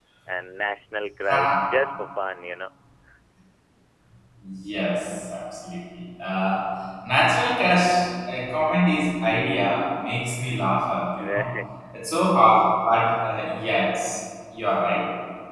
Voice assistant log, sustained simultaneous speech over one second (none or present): none